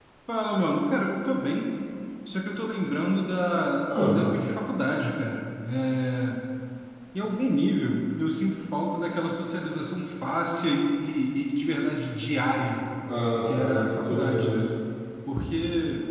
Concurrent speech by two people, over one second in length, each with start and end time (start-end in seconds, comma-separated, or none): 13.4-14.7